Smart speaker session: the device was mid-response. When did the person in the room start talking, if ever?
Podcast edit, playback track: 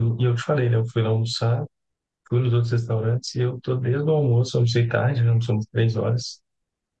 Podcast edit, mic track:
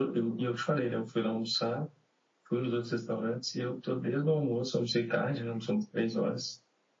none

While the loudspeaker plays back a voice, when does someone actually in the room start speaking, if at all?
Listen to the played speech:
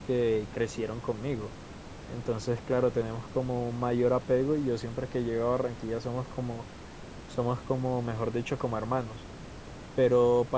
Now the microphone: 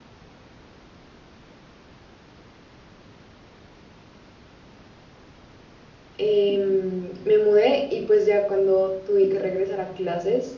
6.2 s

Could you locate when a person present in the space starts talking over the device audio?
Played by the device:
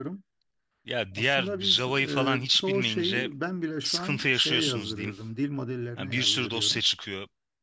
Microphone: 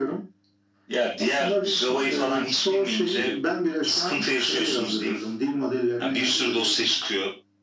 none

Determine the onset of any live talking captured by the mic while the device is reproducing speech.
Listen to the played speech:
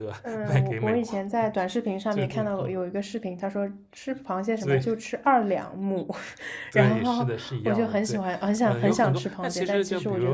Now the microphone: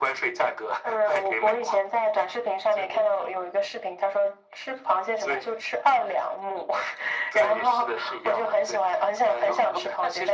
none

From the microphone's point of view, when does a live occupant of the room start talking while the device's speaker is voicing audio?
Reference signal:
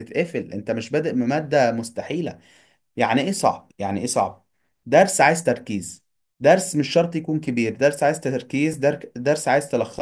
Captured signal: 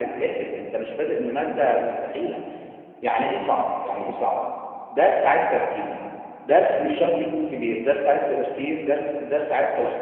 none

